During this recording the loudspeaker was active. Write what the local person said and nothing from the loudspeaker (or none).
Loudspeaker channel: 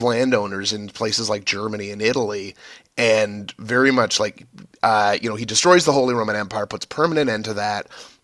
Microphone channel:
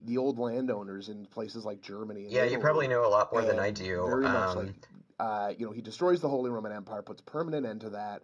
Yeah, you probably know a lot more than I do. Um,